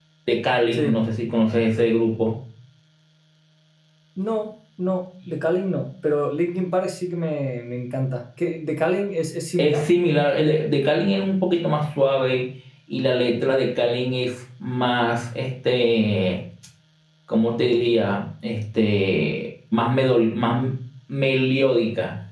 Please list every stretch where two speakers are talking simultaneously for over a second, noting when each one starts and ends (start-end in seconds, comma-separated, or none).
none